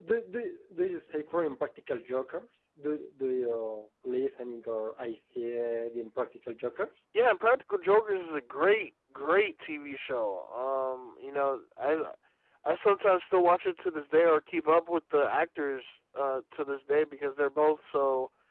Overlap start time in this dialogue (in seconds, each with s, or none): none